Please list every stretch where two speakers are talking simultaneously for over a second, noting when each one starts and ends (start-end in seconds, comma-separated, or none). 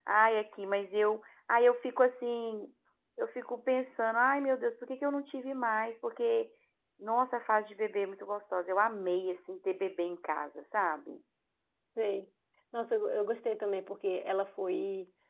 none